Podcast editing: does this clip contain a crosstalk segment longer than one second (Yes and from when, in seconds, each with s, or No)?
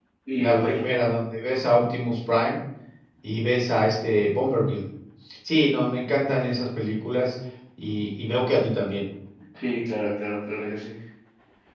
No